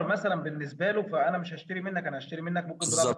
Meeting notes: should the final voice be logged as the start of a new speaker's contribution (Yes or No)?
Yes